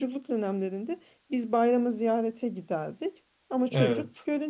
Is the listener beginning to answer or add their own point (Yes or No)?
No